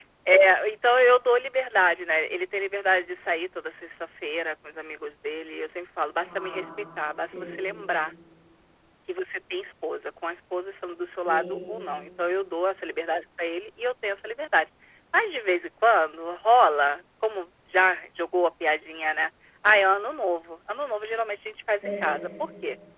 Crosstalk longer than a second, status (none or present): none